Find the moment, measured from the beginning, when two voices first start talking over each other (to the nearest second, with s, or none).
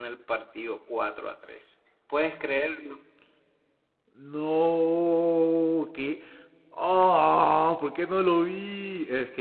none